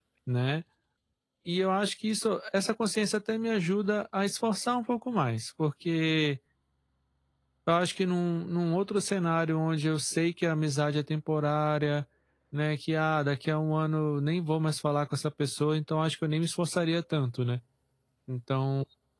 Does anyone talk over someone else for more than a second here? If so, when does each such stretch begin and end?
none

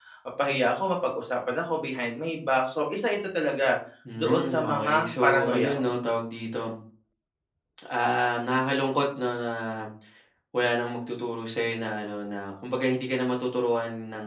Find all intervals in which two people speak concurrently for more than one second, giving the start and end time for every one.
4.2-5.9

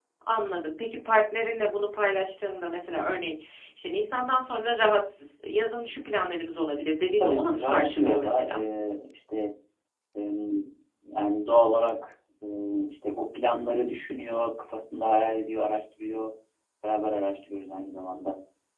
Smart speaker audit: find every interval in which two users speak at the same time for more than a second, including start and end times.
7.2-8.6

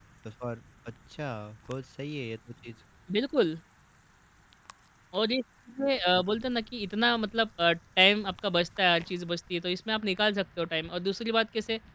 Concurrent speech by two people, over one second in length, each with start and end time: none

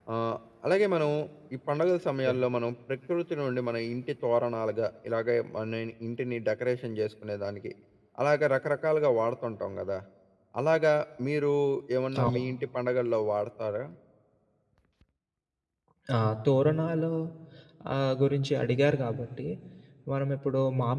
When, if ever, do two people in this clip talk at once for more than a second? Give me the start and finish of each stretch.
none

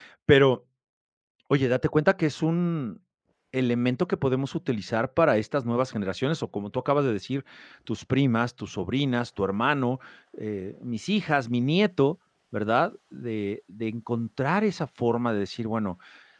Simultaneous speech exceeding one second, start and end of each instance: none

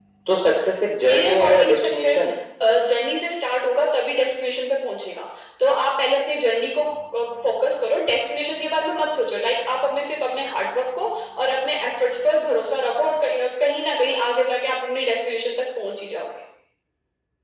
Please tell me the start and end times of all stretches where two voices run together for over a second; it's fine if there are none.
1.0-2.2

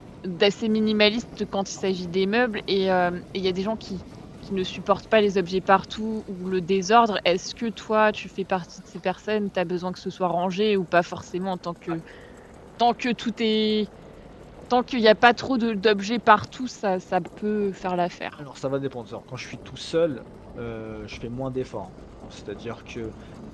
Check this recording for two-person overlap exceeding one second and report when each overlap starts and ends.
none

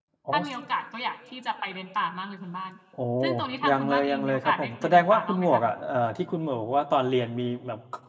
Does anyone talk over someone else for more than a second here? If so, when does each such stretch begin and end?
3.7-5.6

